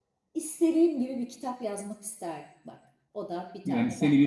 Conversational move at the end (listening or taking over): taking over